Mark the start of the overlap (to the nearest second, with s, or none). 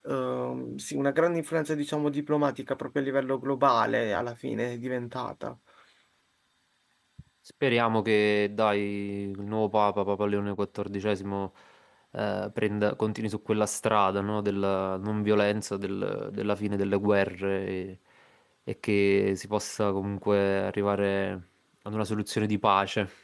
none